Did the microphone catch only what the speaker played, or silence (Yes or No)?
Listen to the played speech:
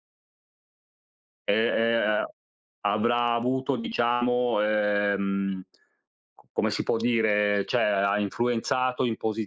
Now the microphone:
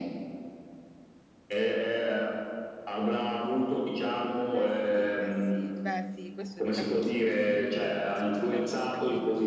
No